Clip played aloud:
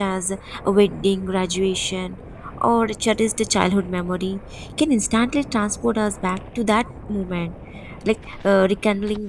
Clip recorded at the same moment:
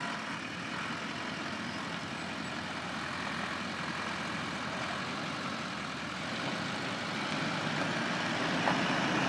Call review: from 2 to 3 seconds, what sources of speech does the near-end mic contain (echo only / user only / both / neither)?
neither